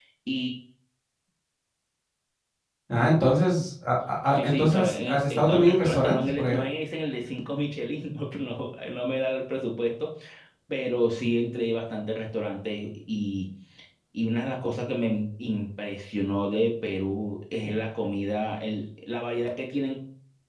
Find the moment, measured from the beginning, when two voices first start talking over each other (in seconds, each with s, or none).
4.3 s